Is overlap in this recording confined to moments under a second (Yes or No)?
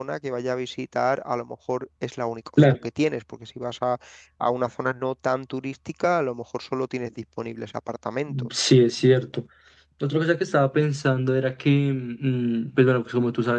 Yes